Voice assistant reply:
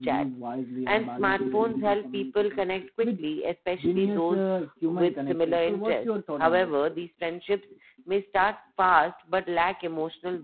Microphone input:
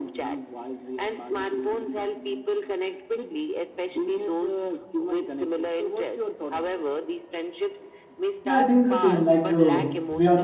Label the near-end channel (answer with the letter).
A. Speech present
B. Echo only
A